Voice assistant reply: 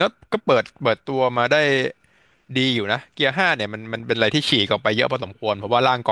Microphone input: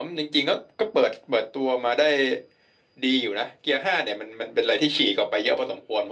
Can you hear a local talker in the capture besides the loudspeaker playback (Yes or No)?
No